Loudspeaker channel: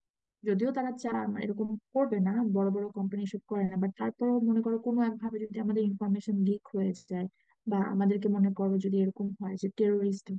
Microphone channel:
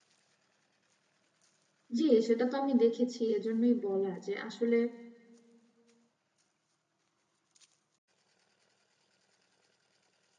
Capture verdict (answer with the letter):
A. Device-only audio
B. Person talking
B